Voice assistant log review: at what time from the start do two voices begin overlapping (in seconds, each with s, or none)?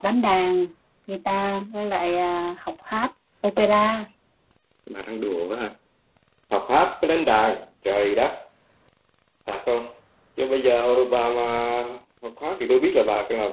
none